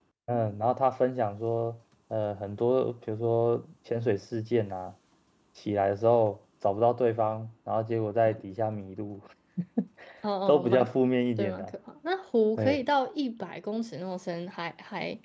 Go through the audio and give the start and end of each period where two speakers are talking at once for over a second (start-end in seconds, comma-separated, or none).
none